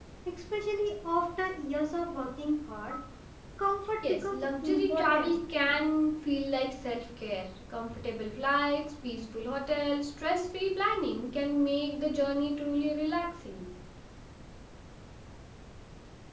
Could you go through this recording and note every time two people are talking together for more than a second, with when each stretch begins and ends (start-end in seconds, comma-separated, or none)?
4.0-5.4